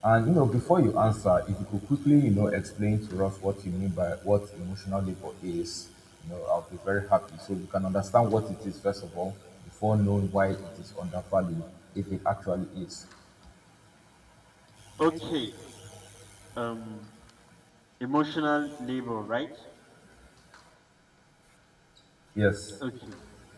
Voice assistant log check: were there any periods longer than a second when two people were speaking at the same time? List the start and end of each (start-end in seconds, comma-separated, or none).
none